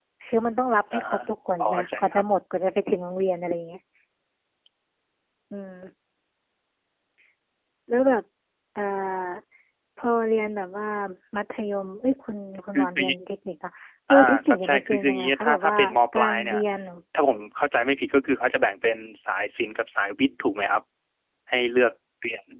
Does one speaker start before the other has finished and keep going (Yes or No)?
Yes